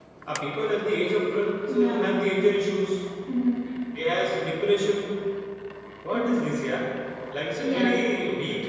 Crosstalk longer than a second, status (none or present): none